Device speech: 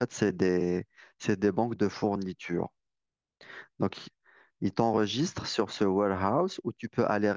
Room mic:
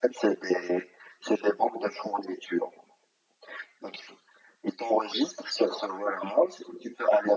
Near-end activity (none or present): none